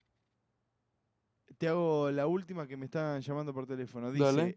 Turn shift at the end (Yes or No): No